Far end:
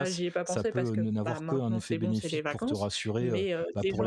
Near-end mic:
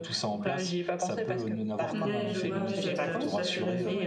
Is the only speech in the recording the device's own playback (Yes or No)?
No